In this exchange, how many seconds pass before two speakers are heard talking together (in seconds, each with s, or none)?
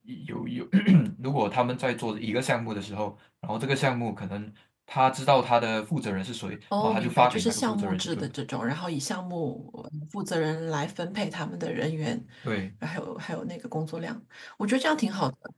6.7 s